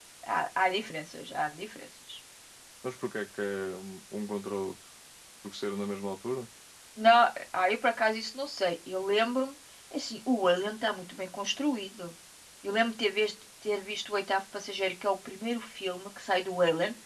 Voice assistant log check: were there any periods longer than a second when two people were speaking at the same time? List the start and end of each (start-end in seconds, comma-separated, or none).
none